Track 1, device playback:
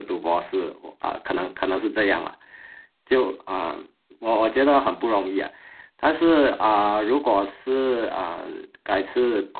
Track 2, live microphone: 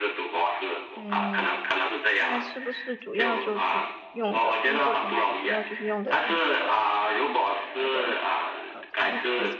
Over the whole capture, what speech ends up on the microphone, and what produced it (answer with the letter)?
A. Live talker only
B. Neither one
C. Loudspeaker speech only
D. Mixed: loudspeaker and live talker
D